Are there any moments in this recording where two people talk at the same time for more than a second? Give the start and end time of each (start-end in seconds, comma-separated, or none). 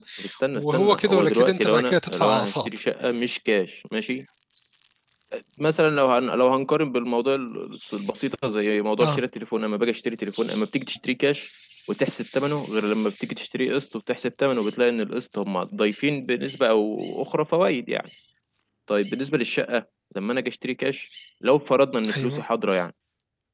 0.6-2.7